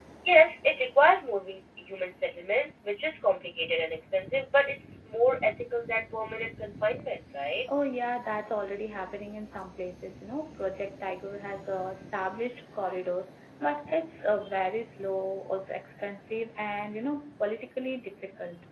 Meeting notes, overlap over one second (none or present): none